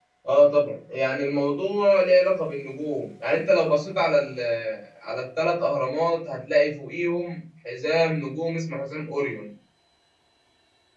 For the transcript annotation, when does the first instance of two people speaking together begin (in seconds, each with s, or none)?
none